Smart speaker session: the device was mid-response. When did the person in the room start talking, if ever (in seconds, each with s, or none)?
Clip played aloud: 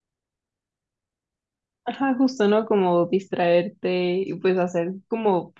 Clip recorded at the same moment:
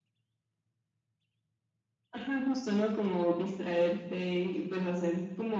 none